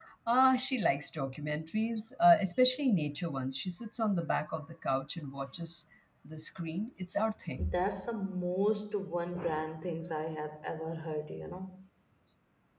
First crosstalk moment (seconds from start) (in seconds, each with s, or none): none